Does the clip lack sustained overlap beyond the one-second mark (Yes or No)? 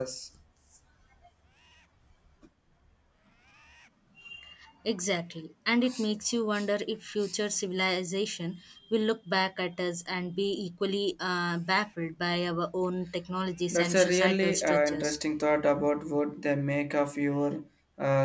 No